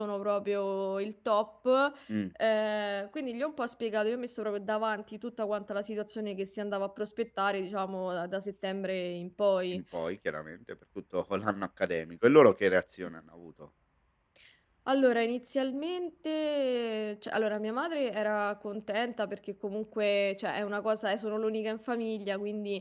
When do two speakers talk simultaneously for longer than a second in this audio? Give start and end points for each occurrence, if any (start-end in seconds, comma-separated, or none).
none